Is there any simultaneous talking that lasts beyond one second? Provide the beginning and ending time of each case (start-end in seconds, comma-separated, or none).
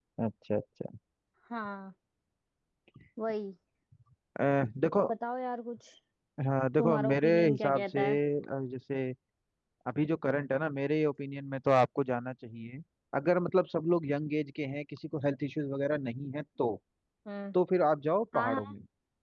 6.8-8.2